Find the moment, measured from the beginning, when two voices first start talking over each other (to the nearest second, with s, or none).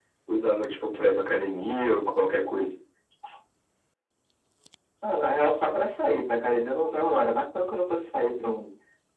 none